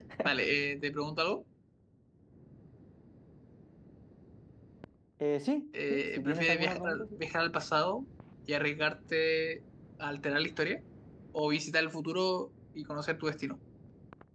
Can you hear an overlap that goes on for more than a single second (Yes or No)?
Yes